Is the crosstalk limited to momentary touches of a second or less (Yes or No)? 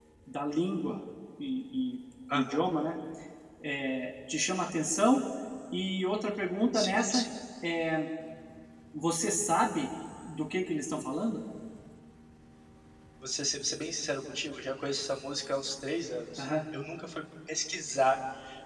Yes